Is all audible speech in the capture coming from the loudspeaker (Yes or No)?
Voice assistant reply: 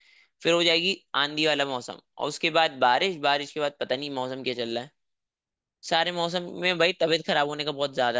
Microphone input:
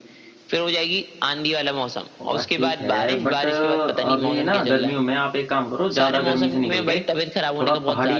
No